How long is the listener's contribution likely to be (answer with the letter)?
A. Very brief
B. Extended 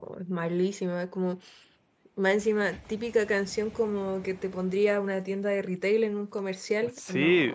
B